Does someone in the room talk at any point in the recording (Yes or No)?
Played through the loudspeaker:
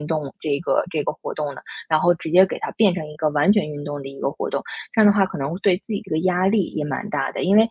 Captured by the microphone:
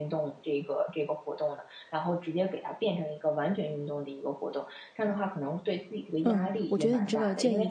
Yes